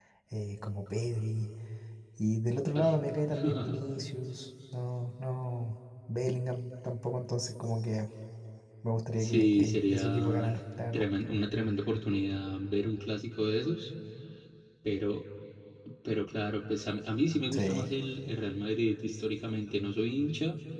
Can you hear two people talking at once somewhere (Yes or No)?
Yes